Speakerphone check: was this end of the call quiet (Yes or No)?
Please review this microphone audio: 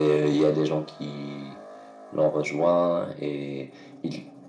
Yes